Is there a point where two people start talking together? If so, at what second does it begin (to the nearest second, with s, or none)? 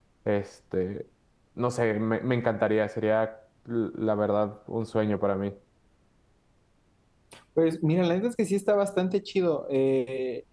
none